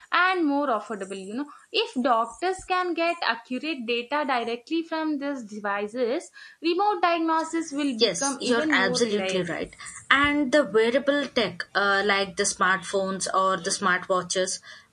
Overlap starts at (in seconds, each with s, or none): 8.0 s